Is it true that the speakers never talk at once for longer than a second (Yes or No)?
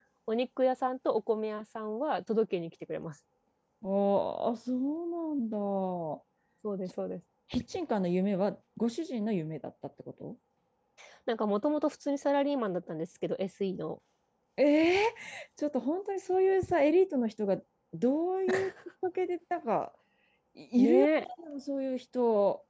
Yes